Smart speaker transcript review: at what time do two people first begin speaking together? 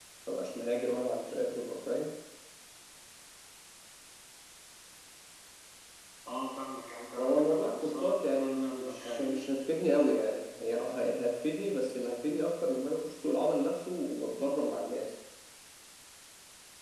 7.2 s

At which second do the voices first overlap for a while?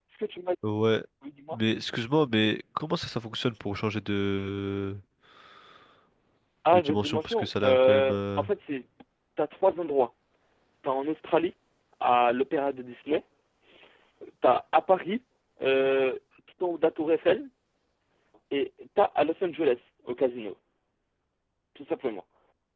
6.7 s

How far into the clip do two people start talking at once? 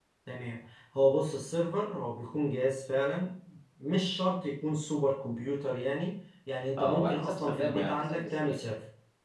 6.8 s

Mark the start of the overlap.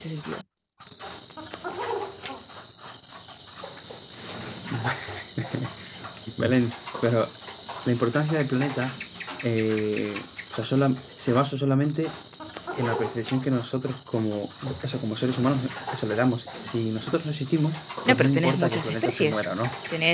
18.1 s

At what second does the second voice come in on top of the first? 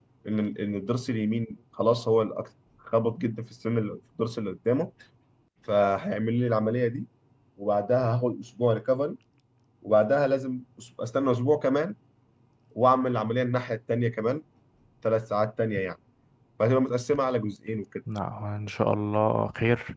none

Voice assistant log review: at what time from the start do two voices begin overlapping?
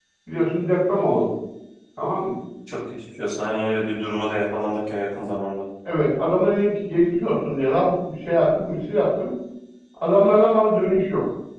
none

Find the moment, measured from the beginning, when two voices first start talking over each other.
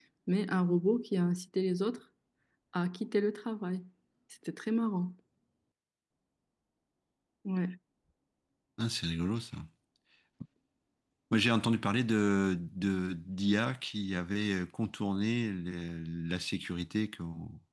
none

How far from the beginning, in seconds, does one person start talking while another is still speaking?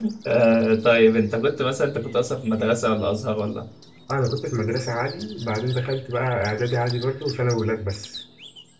none

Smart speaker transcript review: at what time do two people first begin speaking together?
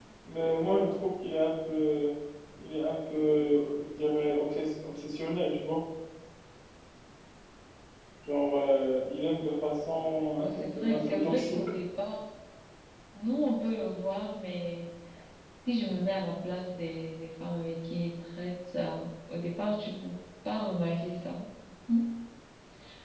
10.4 s

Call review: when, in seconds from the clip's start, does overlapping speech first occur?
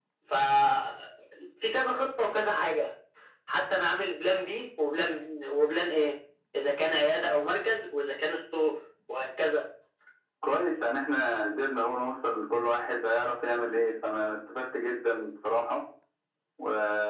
none

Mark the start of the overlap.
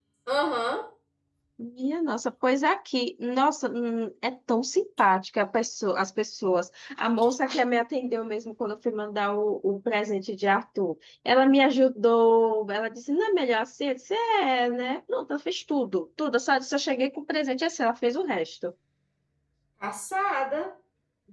none

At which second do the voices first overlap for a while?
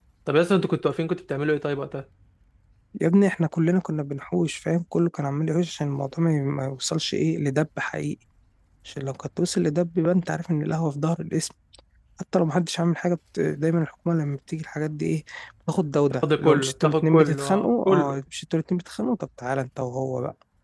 16.4 s

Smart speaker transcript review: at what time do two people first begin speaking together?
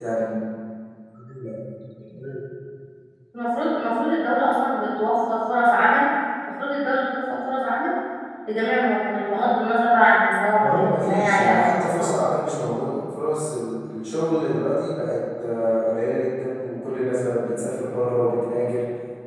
10.6 s

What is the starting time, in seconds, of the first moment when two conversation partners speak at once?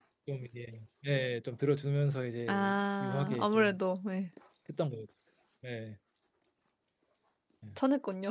2.5 s

